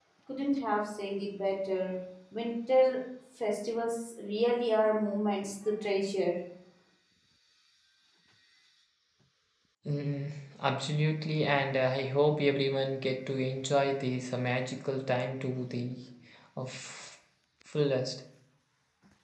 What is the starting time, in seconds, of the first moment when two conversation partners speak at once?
none

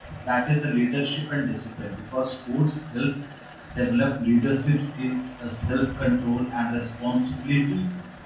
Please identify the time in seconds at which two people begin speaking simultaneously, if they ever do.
none

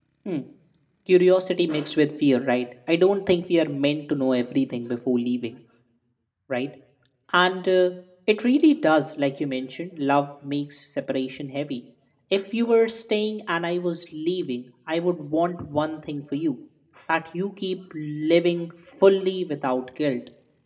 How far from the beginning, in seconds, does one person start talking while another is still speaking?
none

